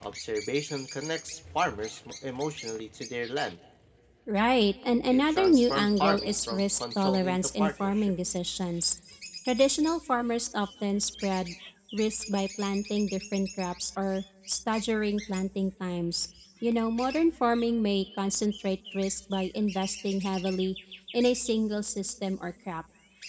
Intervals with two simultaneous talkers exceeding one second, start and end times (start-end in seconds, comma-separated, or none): 5.1-8.1